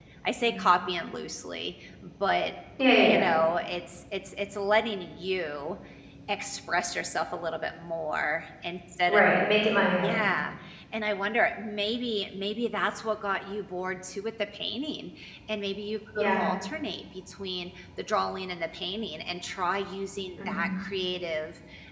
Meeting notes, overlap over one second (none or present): none